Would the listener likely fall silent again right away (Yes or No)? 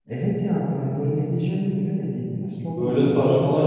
No